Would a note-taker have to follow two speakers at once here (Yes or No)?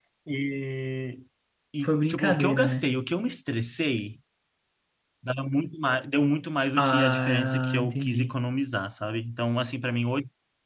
Yes